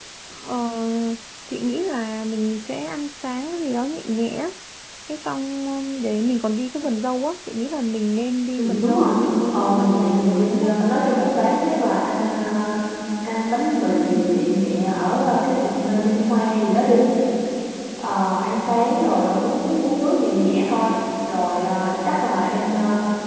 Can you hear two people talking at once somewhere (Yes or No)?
Yes